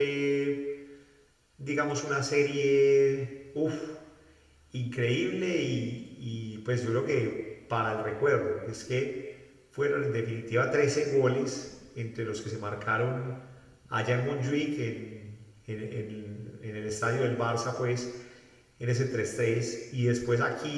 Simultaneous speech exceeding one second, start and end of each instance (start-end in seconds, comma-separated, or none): none